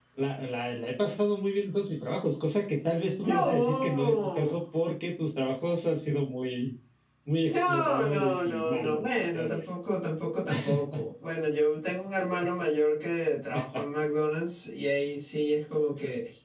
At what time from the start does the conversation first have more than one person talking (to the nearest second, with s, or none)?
3 s